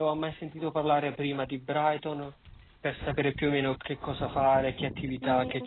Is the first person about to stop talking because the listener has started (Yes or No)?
Yes